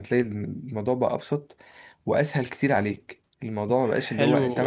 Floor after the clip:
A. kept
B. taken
B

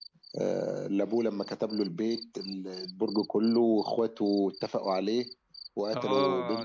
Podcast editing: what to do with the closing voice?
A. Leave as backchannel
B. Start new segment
B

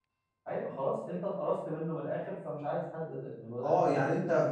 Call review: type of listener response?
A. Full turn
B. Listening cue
A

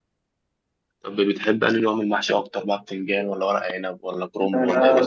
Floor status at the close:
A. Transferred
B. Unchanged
A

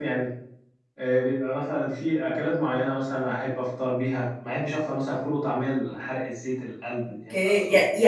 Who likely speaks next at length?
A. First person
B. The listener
B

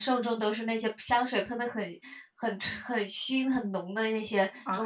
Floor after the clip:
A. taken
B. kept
A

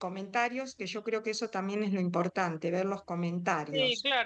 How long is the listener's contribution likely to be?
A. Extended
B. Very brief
A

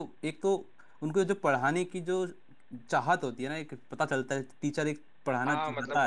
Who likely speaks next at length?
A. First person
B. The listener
B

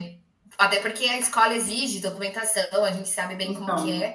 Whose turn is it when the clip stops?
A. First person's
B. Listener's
B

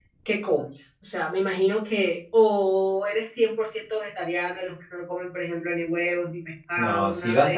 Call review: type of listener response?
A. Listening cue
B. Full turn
B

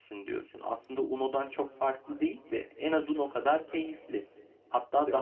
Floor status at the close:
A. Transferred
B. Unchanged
B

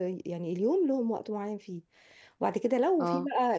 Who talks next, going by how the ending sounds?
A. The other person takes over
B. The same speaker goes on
B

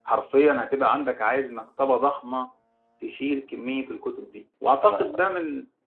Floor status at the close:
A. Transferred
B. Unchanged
B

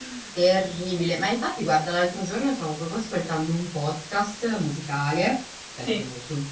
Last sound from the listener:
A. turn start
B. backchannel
B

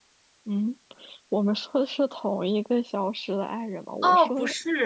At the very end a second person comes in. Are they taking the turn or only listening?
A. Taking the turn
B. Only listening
A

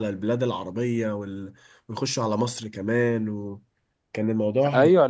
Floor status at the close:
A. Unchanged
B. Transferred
B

